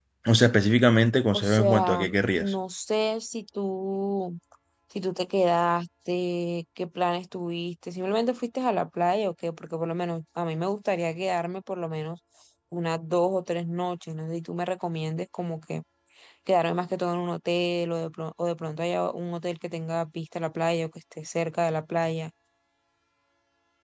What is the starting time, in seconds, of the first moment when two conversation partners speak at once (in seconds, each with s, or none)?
1.3 s